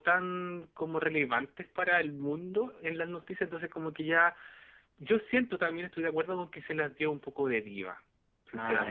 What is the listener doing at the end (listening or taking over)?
taking over